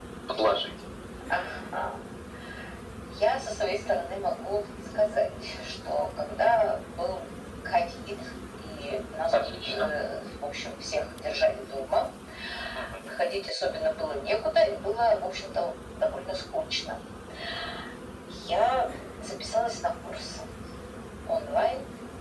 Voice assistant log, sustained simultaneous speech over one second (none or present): none